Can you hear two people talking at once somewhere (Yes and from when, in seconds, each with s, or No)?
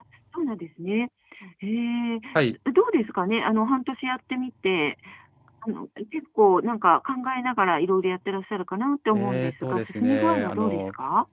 Yes, from 9.1 s